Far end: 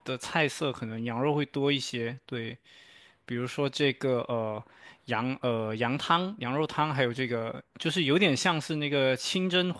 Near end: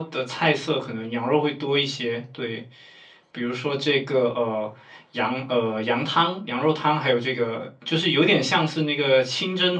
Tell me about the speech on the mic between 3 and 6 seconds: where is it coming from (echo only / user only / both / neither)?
echo only